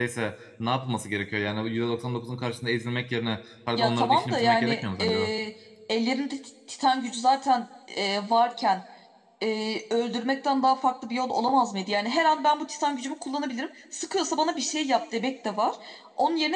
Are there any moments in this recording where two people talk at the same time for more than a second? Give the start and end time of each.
3.8-5.1

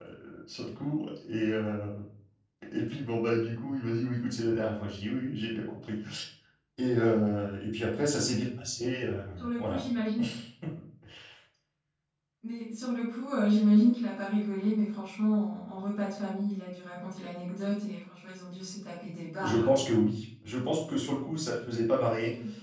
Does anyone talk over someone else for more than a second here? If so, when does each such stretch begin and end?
none

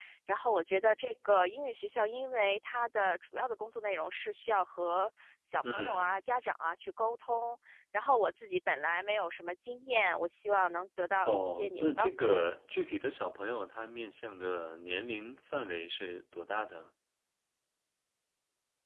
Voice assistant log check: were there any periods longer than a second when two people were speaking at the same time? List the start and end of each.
11.2-12.5

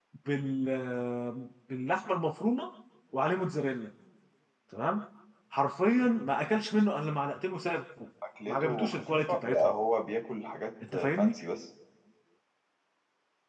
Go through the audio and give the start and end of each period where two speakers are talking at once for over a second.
8.5-9.7

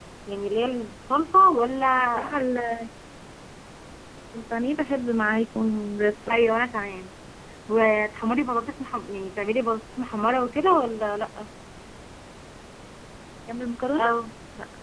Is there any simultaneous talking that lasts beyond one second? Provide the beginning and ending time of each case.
none

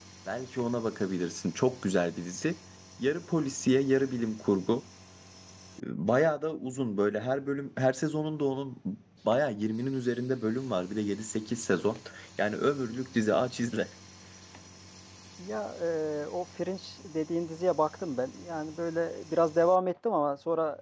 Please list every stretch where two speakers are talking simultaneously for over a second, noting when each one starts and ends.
none

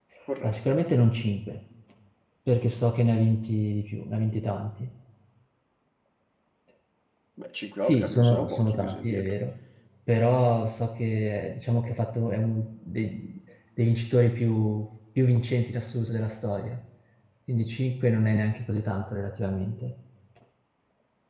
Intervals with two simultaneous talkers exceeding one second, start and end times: 7.8-9.3

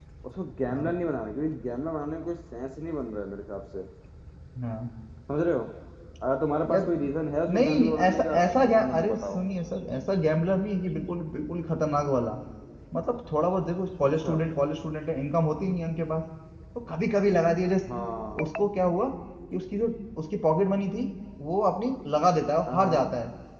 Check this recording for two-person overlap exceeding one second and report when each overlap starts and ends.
7.5-9.4

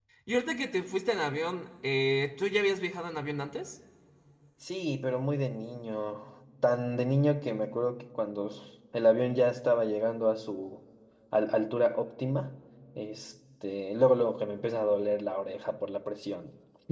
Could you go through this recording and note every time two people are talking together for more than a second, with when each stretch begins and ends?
none

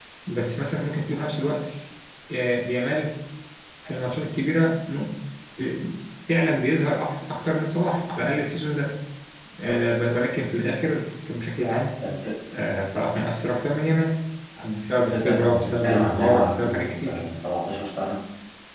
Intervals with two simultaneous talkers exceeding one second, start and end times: 15.1-17.2

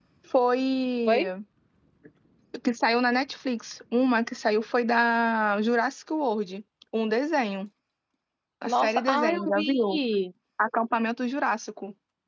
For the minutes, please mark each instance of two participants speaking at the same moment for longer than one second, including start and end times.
8.6-10.0

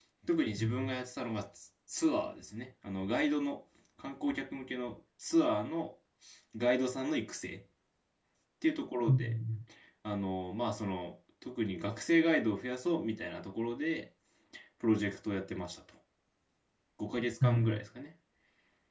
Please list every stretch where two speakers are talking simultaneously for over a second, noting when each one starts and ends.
none

